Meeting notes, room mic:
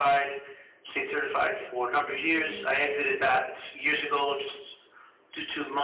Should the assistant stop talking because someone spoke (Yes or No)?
Yes